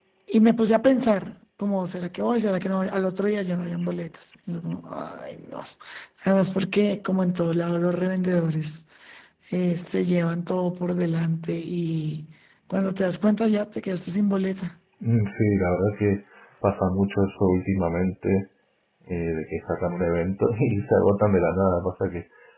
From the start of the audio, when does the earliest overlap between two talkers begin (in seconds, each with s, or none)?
none